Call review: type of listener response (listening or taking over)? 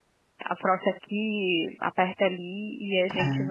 listening